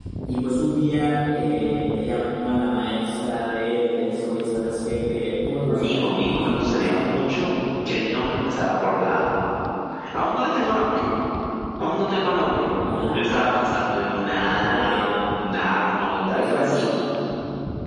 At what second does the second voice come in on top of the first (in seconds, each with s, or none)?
5.7 s